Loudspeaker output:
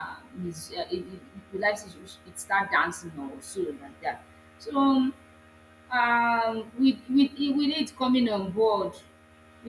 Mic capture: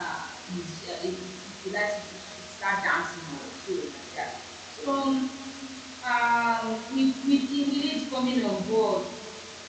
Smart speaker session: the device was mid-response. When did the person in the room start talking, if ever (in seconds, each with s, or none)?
none